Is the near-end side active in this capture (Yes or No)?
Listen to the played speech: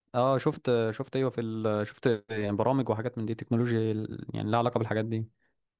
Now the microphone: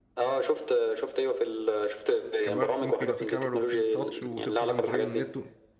Yes